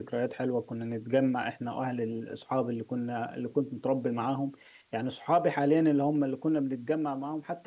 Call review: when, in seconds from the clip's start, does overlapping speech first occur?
none

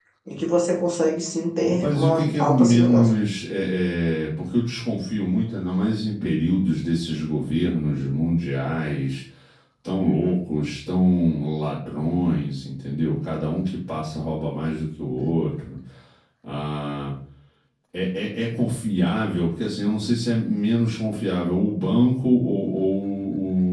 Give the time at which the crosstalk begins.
1.8 s

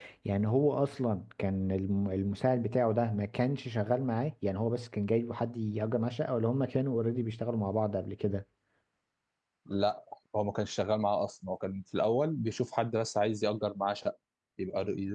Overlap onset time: none

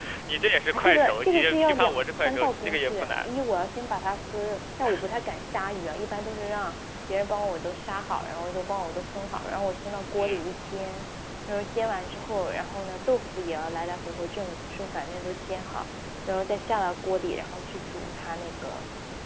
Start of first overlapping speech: 0.7 s

